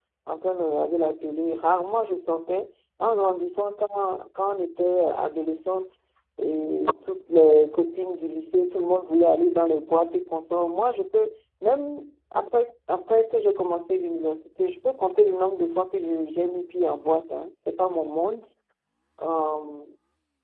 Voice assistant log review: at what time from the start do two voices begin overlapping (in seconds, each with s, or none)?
none